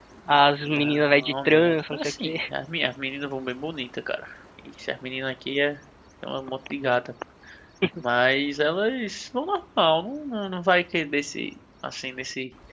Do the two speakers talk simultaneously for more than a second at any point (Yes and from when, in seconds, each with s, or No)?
Yes, from 0.8 s